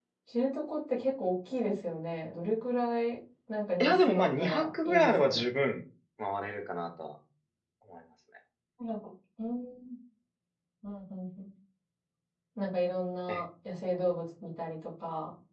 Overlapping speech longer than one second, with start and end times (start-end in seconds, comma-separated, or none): 3.8-5.5